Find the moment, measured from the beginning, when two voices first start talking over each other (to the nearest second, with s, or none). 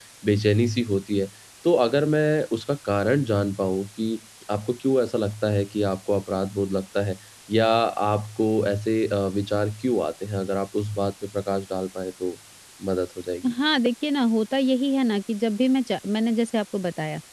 none